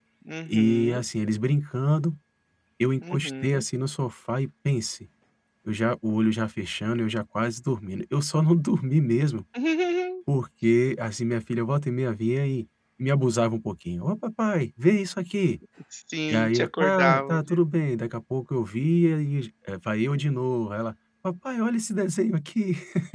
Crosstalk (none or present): present